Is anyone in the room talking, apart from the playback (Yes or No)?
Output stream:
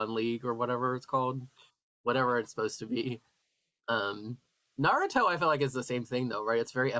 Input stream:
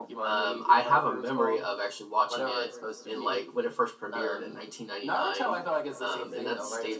Yes